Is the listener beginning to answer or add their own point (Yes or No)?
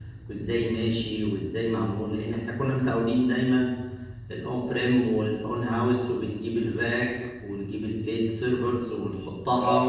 Yes